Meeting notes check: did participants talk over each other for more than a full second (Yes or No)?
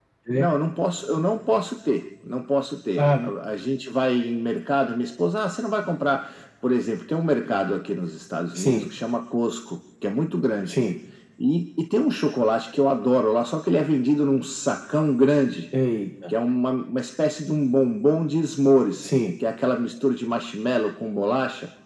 No